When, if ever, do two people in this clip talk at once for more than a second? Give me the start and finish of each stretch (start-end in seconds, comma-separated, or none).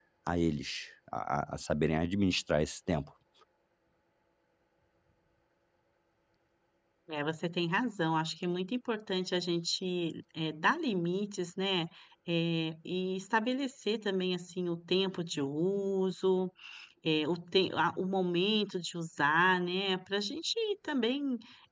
none